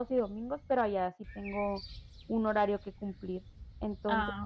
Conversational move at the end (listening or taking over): listening